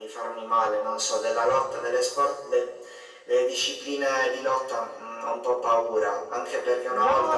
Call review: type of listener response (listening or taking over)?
listening